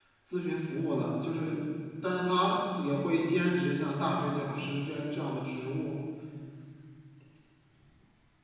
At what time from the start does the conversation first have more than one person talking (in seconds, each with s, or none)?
none